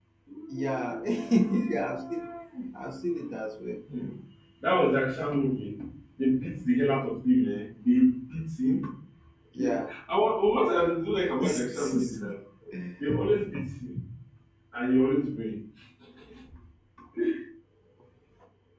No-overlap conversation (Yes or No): No